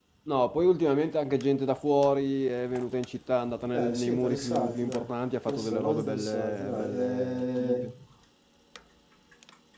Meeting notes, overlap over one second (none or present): present